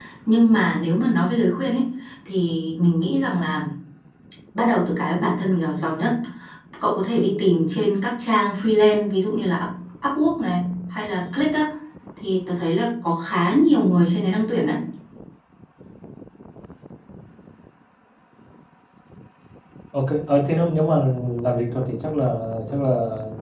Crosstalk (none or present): none